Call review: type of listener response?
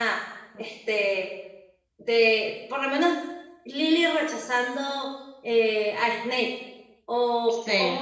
listening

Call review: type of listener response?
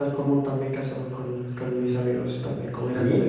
listening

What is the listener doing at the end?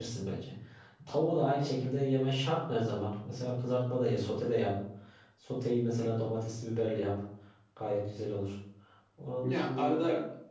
taking over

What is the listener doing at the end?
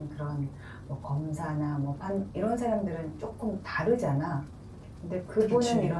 listening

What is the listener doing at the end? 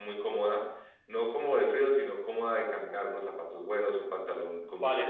listening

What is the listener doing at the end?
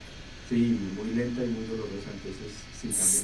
listening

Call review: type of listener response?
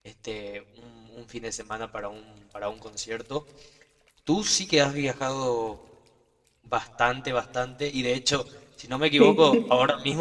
listening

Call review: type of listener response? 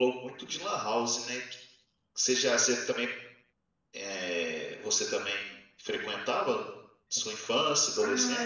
taking over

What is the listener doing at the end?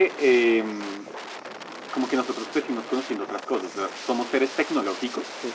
taking over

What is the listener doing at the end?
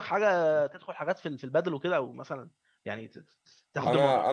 taking over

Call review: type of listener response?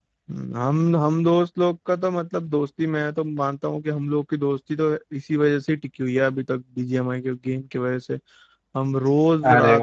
listening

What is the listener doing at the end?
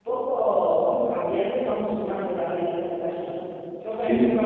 listening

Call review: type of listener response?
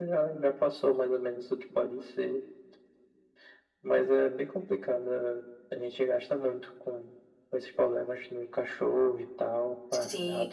taking over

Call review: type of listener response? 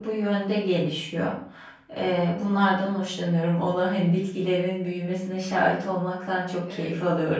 taking over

